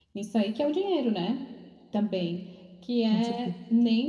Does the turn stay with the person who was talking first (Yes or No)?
Yes